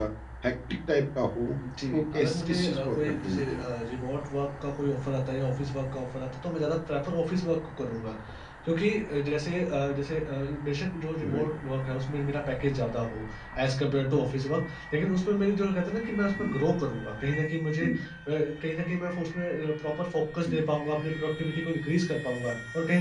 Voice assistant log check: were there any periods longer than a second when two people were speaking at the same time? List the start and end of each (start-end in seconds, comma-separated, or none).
1.9-3.6